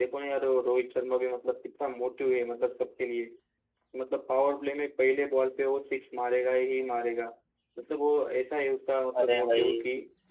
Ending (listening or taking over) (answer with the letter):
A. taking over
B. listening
B